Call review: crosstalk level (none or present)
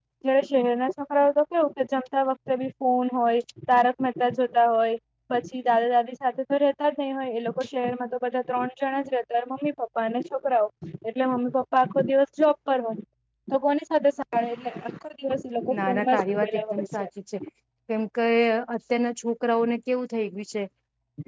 present